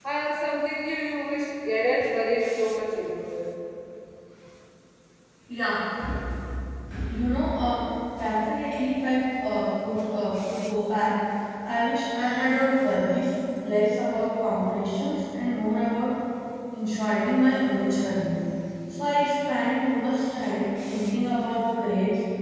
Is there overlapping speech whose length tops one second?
No

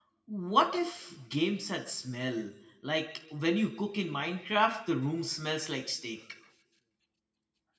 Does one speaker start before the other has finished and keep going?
No

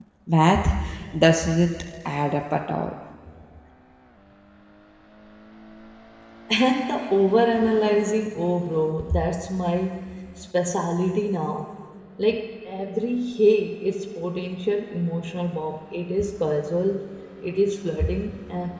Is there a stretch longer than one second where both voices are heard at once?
No

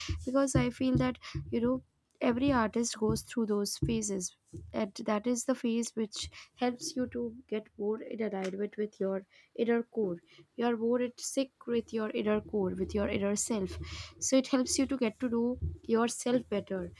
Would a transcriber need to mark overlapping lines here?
No

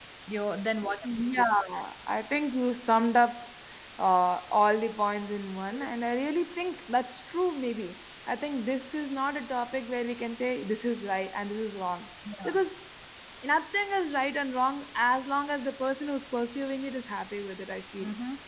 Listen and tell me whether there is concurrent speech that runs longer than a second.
No

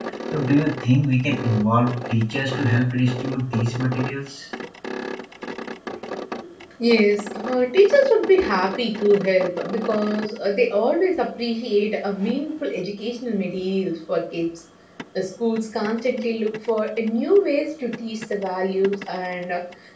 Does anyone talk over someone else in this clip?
No

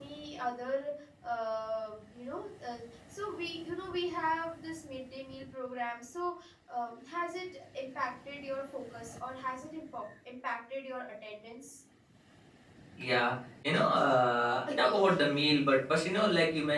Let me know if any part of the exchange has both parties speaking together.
No

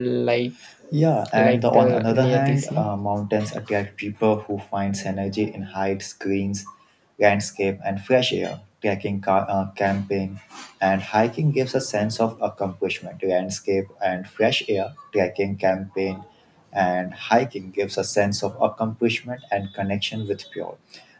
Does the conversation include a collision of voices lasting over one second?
Yes, from 1.5 s

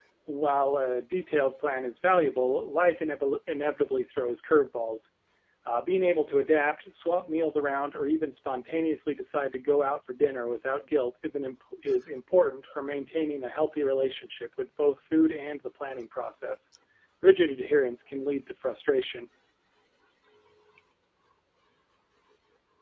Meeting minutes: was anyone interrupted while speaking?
No

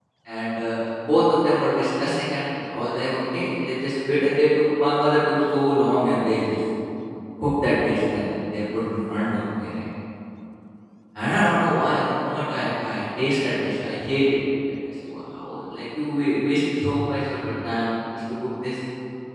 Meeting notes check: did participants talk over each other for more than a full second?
No

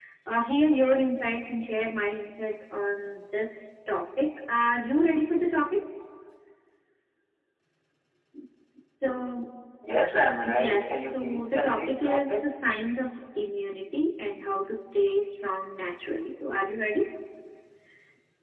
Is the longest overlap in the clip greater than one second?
Yes, from 10.4 s

